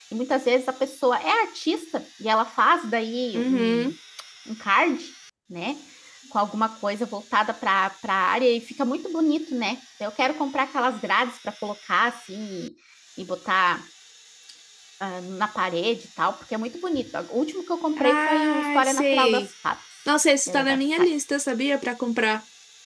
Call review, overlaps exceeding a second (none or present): present